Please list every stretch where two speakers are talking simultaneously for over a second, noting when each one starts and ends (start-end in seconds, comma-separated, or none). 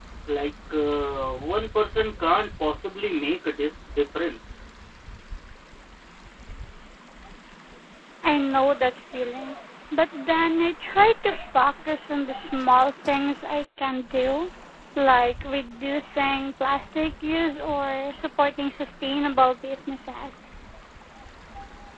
none